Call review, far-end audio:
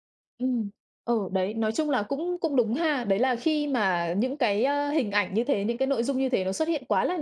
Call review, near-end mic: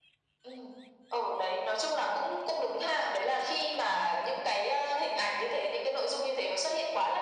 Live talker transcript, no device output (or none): none